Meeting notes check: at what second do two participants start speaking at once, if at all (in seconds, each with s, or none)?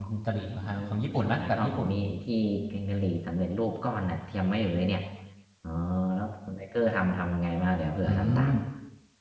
0.6 s